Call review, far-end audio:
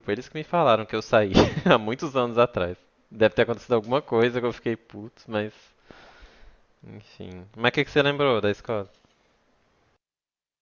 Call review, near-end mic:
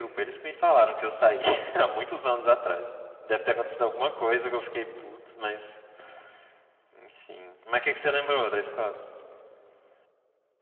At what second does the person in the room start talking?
none

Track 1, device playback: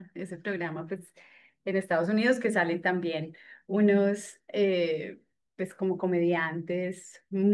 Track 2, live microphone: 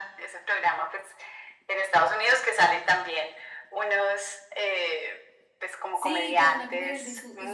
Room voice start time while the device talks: 5.9 s

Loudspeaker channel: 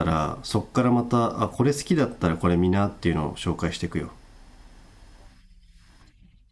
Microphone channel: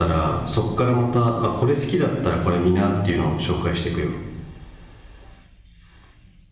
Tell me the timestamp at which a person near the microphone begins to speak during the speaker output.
none

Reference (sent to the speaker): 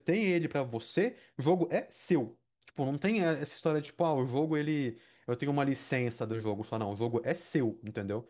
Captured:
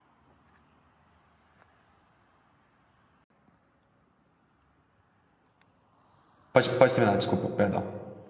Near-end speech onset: 6.5 s

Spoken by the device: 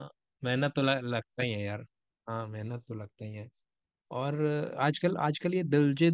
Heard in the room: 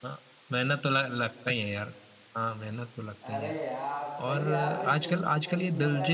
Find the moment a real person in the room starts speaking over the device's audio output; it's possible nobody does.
3.2 s

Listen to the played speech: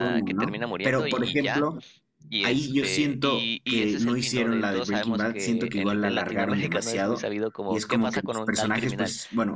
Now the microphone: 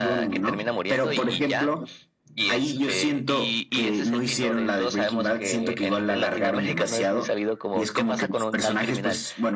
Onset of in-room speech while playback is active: none

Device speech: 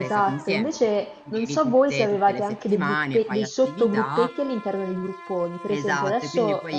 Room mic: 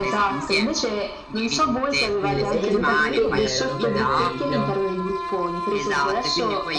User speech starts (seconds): 2.2 s

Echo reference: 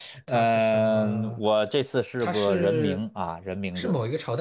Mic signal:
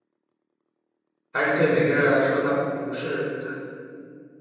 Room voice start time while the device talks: 1.3 s

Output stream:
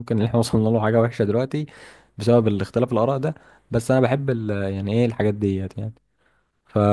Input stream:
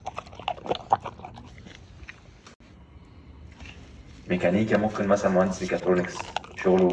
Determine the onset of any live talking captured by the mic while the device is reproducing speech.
4.2 s

